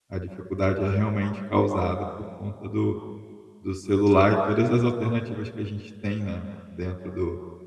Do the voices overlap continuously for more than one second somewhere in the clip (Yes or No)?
No